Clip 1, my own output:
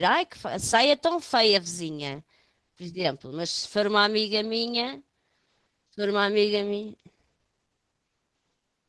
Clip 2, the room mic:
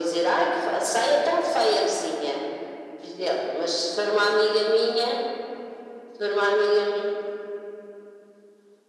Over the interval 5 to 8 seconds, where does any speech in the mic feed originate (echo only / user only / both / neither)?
echo only